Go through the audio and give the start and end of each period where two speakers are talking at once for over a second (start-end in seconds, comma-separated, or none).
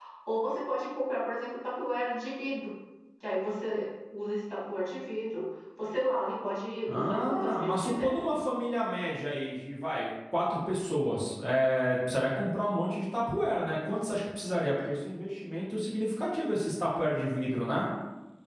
6.9-8.2